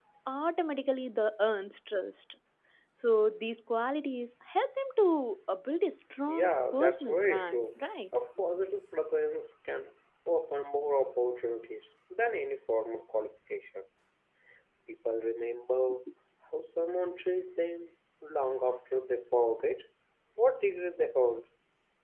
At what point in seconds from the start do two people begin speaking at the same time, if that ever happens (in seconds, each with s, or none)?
6.3 s